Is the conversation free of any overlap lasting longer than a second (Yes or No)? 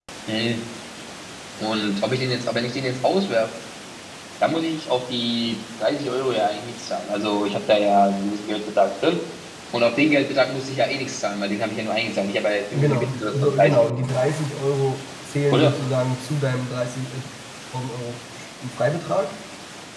No